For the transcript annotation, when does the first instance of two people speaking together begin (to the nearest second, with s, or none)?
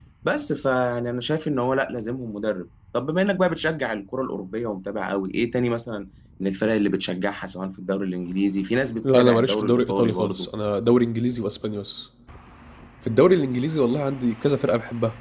9 s